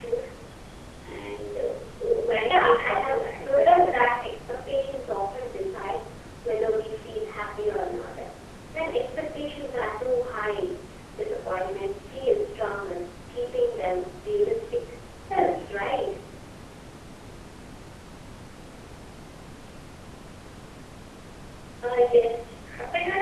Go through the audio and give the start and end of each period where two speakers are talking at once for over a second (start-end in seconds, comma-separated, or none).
2.5-3.9